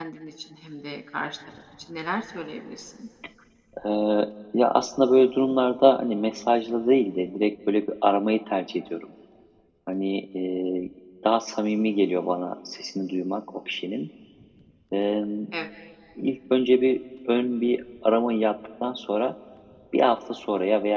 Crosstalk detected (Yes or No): No